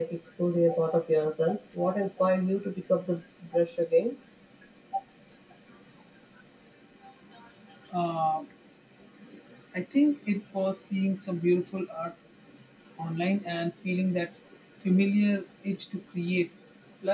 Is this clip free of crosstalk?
Yes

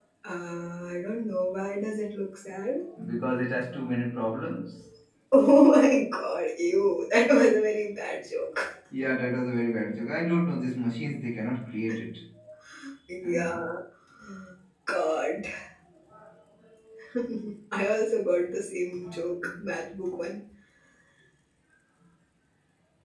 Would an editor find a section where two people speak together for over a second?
No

